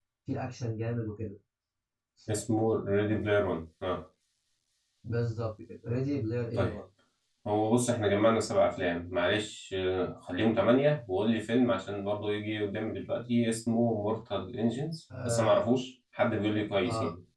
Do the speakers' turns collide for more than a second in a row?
No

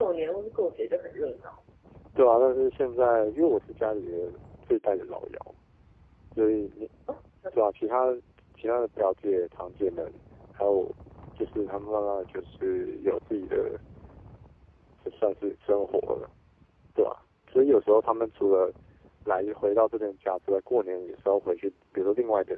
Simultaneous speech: No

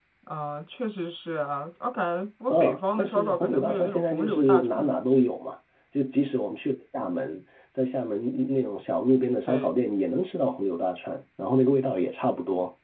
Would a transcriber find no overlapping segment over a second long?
No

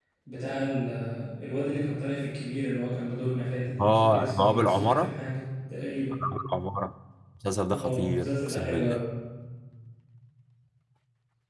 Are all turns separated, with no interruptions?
No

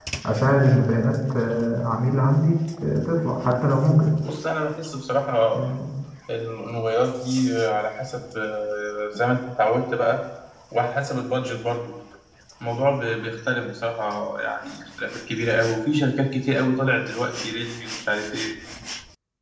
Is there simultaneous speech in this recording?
No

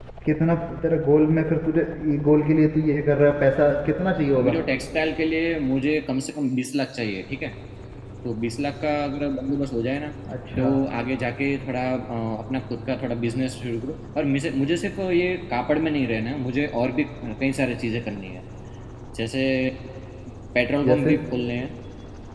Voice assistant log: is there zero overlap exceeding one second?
Yes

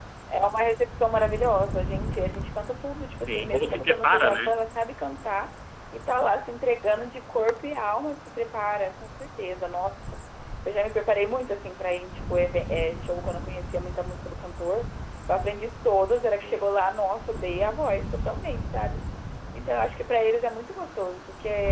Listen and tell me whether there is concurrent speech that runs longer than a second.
Yes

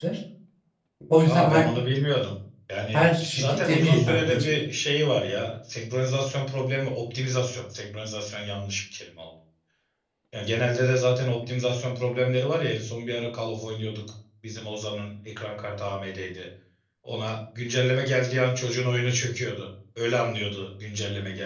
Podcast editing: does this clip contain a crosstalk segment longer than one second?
Yes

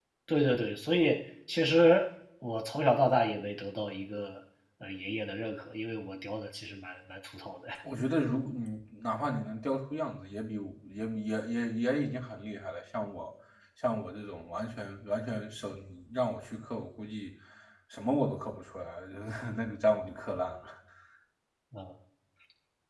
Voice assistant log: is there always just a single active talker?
Yes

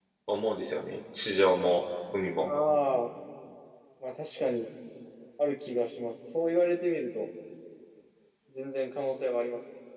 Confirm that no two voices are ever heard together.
Yes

